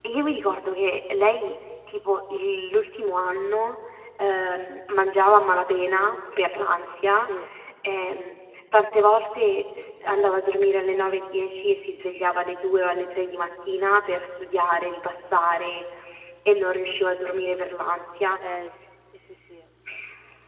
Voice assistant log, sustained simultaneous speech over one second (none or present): none